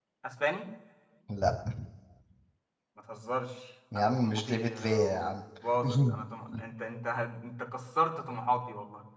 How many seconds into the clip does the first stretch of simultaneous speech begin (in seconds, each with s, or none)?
4.0 s